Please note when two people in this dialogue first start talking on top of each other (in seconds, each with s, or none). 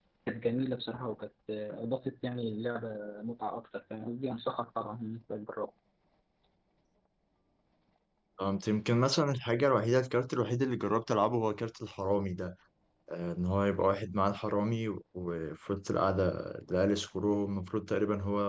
none